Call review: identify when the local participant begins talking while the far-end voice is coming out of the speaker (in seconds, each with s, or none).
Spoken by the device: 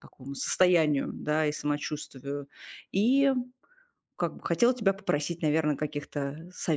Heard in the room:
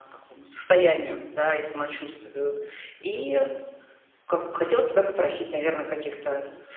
3.0 s